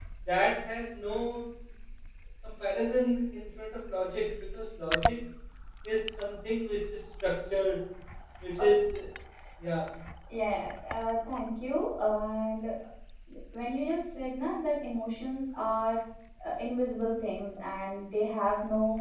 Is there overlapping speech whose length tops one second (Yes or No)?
No